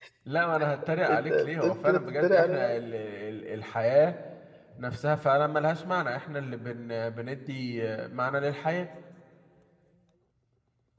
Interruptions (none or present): present